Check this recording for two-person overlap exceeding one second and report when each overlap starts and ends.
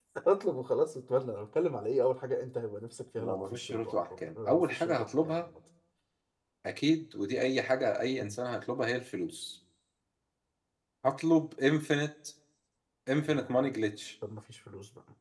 3.2-5.3

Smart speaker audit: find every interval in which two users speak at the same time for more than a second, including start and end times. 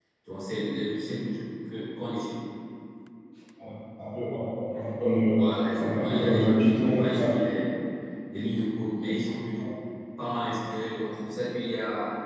5.3-7.4

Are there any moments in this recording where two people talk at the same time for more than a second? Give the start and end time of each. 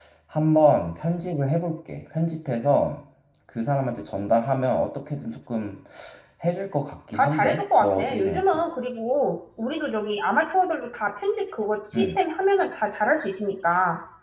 7.1-8.4

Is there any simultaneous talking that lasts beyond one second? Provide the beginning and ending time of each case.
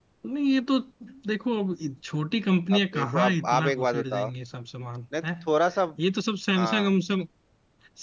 2.7-4.3

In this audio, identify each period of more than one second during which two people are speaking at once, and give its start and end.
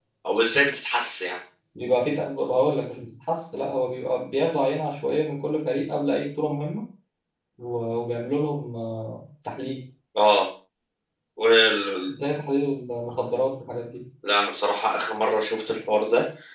none

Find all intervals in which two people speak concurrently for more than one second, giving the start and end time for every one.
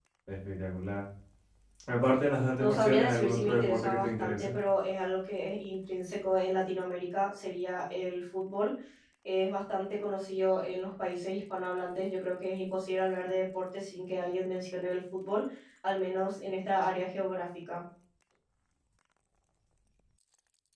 2.6-4.5

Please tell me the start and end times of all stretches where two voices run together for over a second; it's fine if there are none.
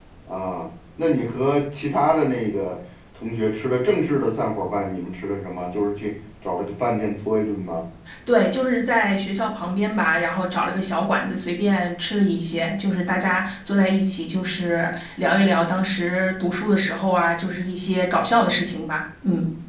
none

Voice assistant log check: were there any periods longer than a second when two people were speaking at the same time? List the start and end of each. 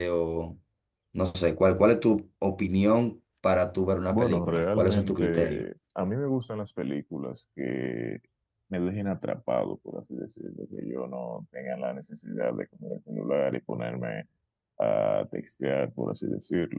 4.1-5.6

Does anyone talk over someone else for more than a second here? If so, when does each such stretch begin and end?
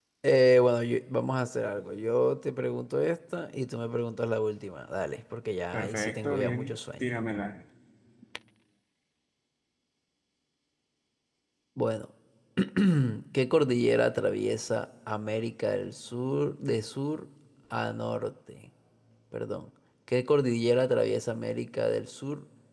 5.7-7.0

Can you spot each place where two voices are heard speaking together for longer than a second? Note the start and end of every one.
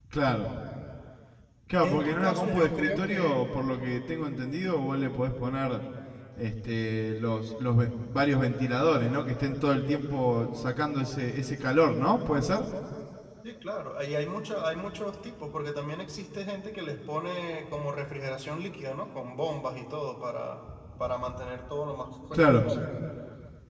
1.8-3.4

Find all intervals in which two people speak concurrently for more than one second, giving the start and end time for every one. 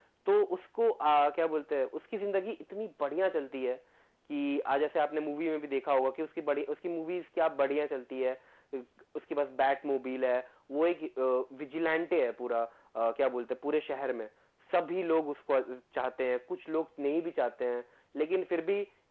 none

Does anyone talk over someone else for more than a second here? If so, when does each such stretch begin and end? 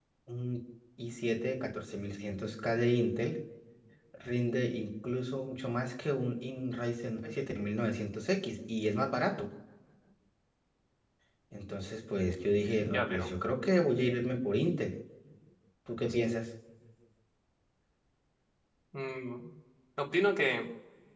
none

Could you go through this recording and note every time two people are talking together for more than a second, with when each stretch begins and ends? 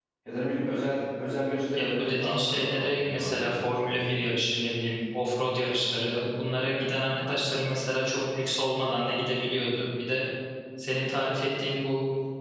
1.8-4.3

